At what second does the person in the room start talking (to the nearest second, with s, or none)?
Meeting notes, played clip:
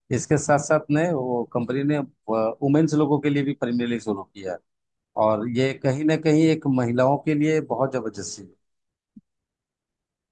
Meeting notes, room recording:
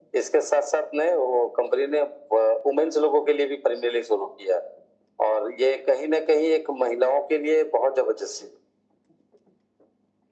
none